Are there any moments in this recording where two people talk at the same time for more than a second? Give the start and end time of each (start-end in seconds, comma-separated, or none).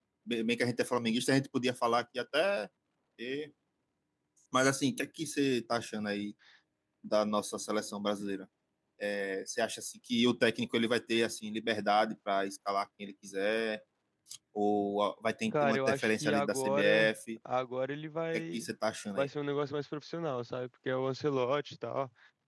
15.5-17.1